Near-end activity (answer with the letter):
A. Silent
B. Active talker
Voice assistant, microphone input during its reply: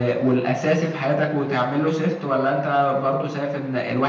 A